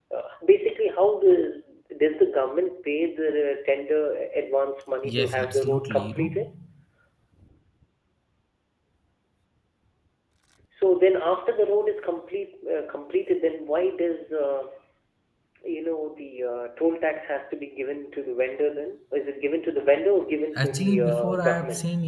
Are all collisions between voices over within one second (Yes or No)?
No